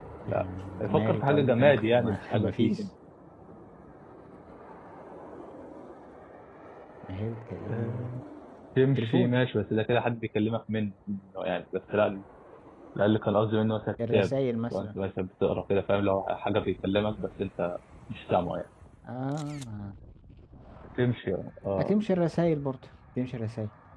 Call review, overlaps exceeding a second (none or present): present